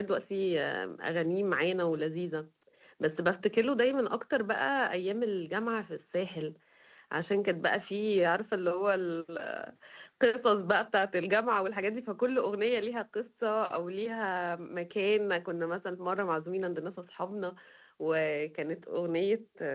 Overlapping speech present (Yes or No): No